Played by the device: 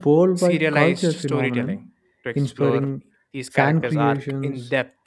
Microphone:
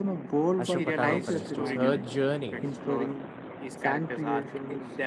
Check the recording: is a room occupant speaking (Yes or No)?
Yes